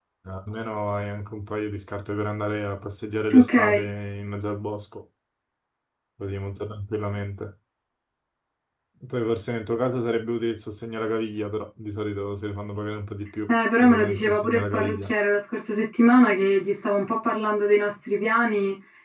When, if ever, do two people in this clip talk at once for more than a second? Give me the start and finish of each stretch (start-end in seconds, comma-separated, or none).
13.5-15.1